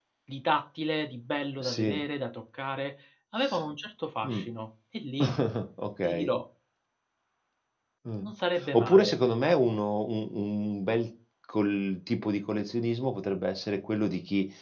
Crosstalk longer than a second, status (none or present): none